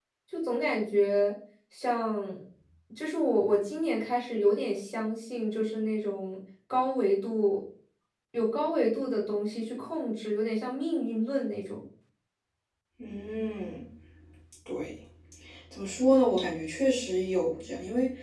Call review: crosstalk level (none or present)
none